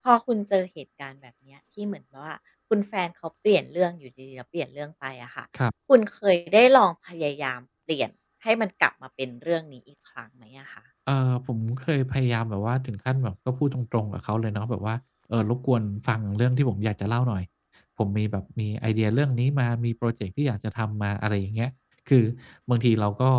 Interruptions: none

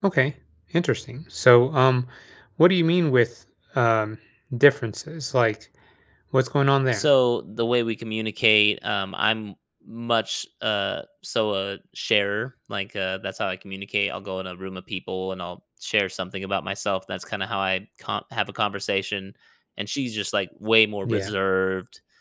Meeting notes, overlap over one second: none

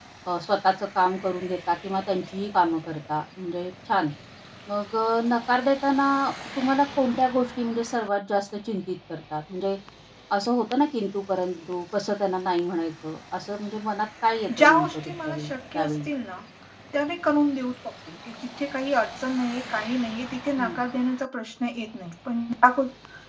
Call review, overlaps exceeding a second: present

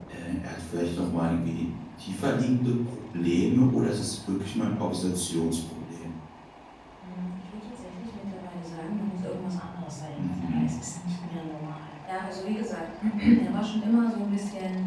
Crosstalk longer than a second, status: none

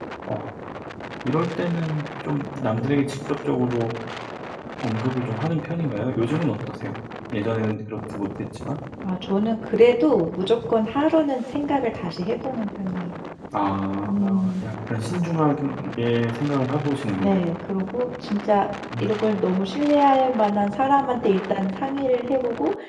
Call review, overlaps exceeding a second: none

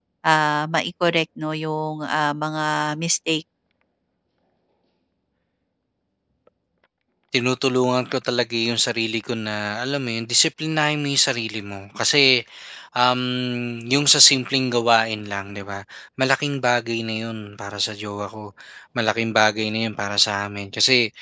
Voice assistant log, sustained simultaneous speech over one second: none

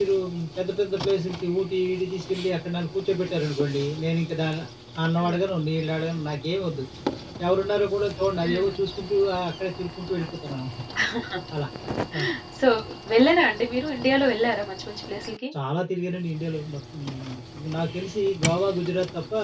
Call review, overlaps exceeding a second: none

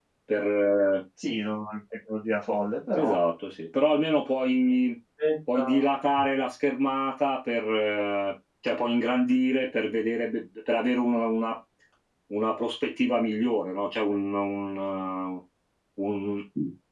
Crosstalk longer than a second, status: none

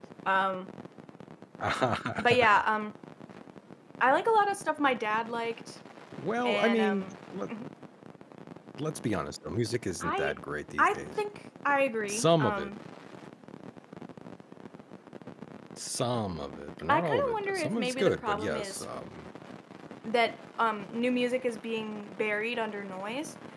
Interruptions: present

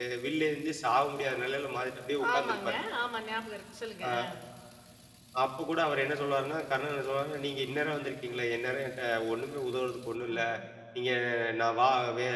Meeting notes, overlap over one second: none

